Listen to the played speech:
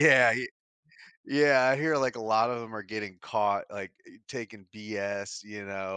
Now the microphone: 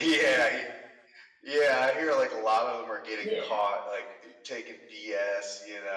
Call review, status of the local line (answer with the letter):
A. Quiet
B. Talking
B